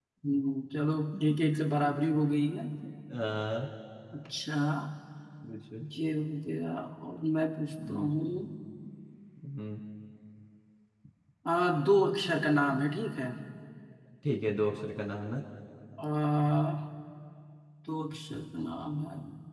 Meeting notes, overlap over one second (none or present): none